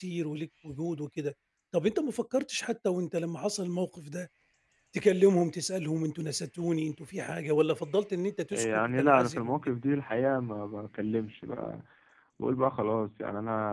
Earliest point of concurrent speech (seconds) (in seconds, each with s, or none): 8.5 s